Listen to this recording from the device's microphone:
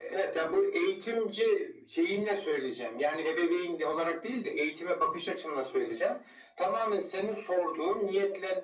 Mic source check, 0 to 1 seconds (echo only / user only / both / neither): echo only